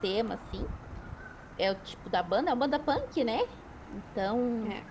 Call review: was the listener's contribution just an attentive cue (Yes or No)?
Yes